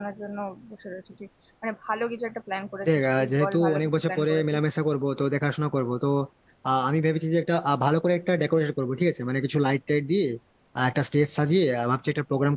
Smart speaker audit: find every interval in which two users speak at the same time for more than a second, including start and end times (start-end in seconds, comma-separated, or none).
2.9-4.6